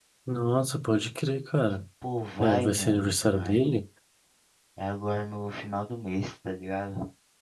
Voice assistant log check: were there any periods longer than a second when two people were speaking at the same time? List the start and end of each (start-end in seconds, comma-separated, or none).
2.4-3.7